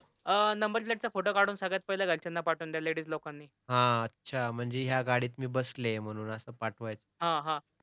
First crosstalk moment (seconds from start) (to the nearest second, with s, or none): none